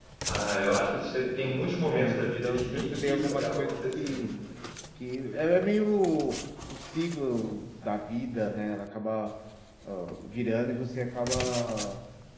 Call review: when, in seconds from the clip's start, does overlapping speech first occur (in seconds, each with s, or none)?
1.8 s